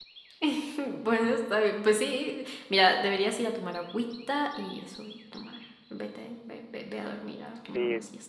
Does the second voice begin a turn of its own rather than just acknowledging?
Yes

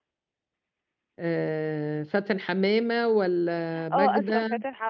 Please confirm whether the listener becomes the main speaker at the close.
Yes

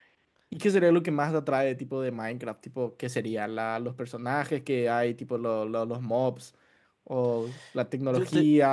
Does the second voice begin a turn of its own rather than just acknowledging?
No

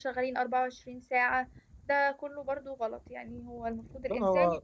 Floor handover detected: No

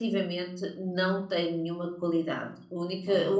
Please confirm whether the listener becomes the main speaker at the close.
No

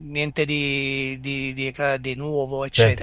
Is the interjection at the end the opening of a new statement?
Yes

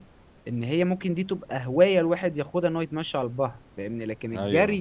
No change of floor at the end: Yes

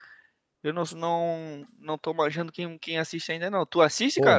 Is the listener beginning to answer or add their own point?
Yes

